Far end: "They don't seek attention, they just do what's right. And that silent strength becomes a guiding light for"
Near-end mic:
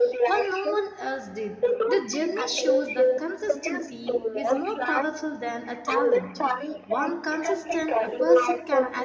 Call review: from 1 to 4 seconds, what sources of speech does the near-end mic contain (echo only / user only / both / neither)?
both